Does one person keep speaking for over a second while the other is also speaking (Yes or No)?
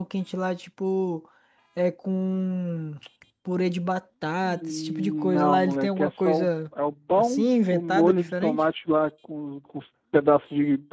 Yes